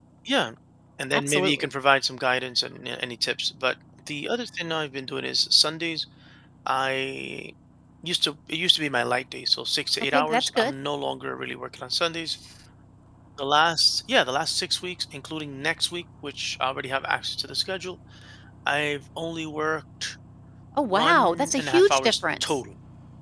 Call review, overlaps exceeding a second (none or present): present